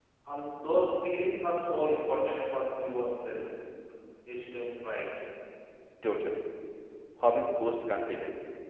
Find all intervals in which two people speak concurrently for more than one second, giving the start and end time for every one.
none

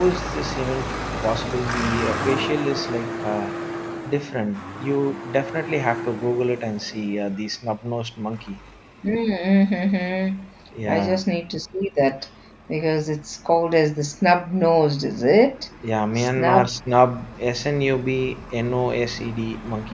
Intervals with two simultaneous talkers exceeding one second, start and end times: none

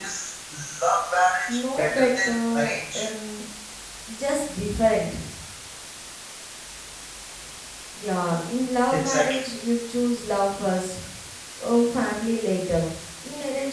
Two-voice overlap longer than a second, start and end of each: 1.8-3.0

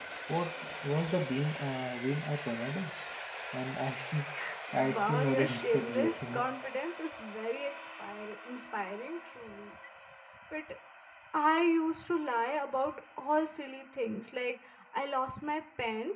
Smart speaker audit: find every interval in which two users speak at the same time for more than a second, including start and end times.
4.7-6.5

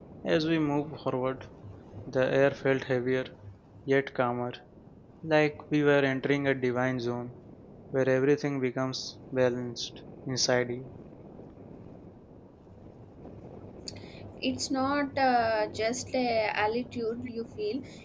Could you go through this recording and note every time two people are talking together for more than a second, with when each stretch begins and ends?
none

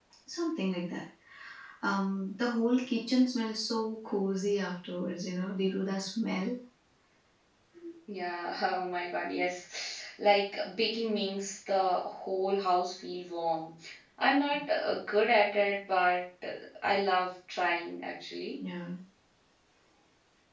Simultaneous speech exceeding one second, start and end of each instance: none

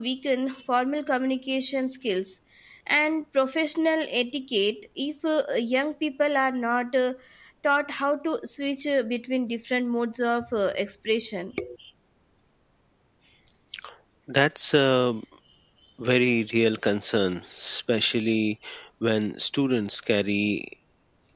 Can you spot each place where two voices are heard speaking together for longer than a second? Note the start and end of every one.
none

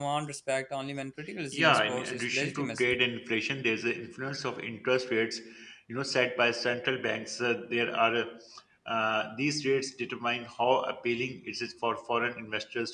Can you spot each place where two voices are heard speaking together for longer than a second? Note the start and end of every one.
1.5-2.9

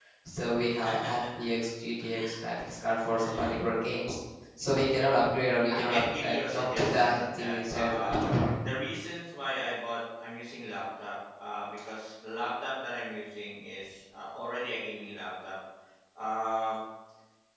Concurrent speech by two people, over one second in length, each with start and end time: 5.7-8.3

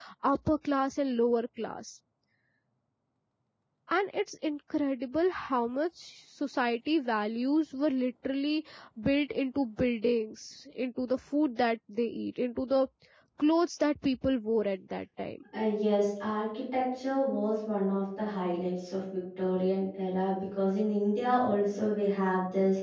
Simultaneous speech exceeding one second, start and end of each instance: none

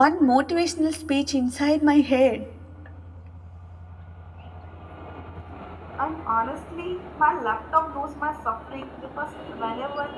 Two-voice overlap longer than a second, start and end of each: none

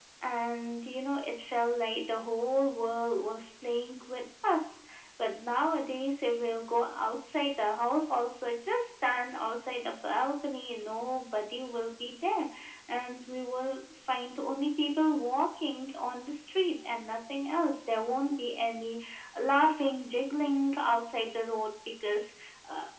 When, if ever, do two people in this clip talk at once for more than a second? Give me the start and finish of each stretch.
none

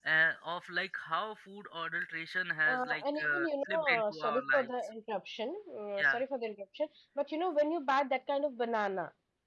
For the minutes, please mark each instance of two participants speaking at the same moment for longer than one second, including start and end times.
2.7-4.7

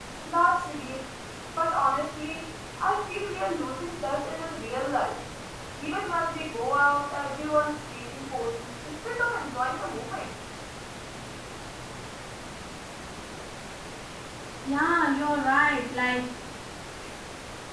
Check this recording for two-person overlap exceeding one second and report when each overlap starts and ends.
none

